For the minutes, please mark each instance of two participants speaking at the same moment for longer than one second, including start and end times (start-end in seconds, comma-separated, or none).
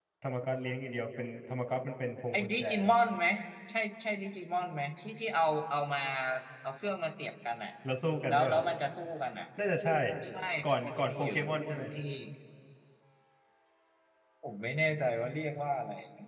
10.6-11.8